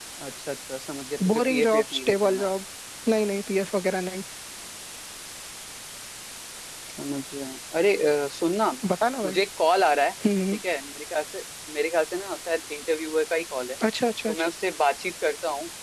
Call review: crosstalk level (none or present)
present